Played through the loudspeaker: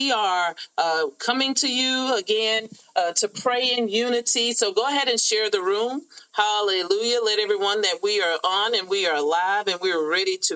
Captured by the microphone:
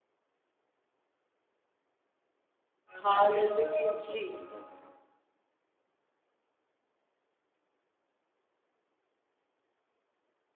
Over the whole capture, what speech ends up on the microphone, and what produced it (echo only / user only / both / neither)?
user only